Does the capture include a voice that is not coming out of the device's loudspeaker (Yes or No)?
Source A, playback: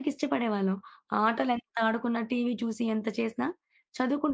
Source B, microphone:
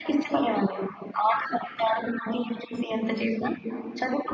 No